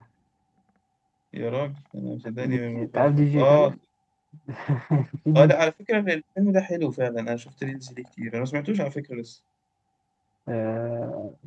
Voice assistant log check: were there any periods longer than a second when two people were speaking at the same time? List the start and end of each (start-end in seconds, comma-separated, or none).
2.4-3.7